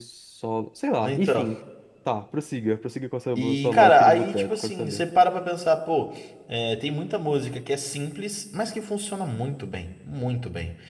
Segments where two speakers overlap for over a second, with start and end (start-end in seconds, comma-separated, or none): 3.4-5.0